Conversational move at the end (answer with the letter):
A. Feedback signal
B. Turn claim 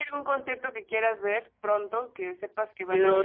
B